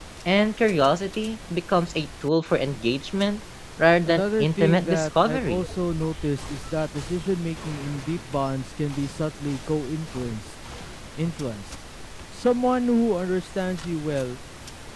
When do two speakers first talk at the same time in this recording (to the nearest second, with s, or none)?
4 s